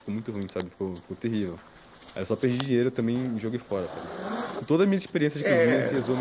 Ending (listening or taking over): listening